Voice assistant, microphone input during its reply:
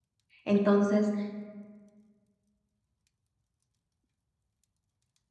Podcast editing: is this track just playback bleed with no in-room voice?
No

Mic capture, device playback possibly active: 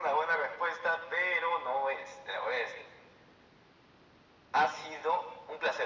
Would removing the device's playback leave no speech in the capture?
Yes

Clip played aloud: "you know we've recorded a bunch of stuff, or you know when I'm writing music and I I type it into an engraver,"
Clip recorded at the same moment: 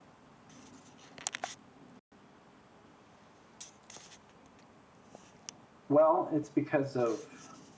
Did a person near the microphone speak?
Yes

